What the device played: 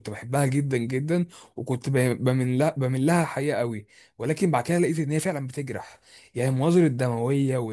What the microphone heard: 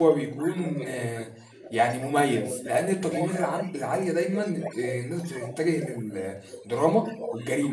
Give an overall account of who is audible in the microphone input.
both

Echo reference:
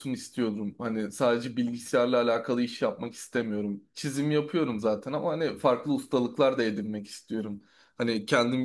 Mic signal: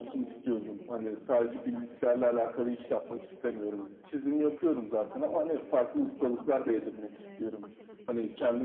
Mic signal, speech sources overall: both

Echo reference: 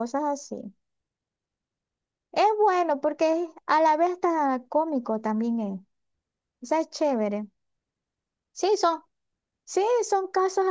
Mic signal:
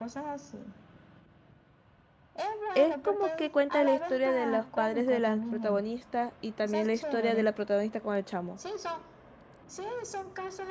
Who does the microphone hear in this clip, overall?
both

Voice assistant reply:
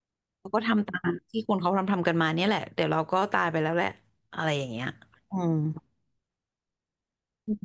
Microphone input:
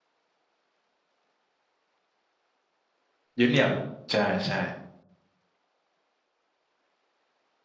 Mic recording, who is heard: user only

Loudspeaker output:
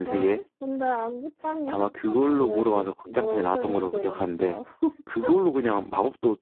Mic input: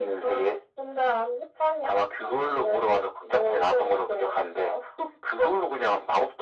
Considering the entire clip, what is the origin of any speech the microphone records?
echo only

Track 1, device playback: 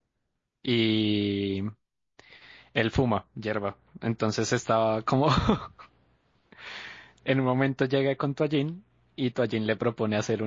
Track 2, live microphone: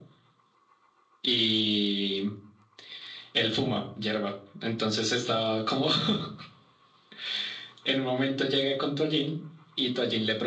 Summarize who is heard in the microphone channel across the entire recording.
echo only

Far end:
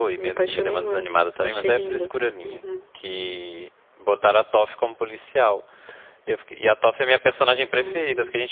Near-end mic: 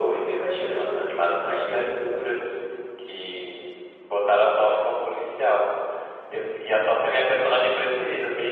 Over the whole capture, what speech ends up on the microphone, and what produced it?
echo only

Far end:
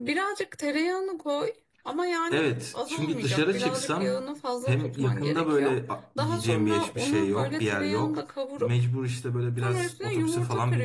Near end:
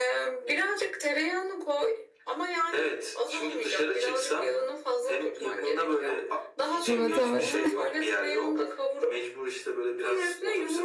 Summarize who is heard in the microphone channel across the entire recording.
both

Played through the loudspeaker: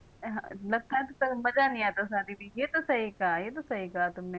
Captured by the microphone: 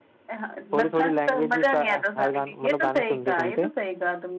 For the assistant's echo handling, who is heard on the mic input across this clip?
both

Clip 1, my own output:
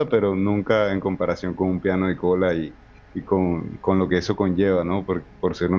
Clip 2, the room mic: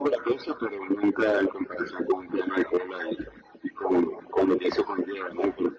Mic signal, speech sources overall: echo only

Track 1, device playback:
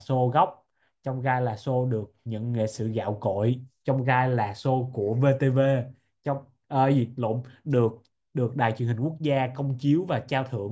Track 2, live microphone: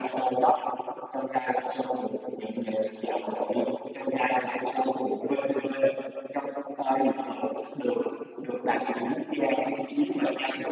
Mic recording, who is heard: echo only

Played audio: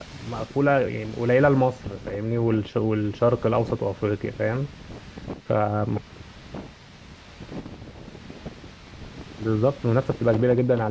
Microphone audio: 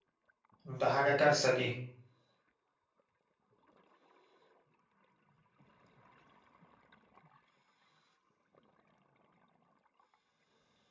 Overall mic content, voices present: user only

